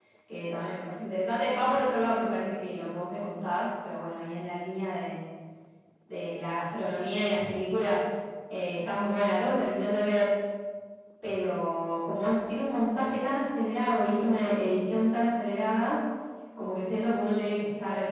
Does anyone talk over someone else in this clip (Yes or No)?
No